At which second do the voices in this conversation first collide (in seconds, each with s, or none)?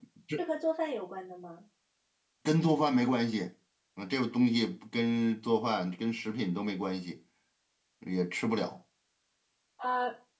none